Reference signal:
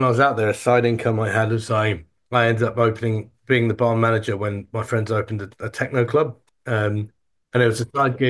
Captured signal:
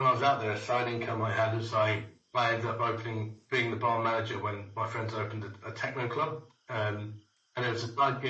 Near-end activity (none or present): none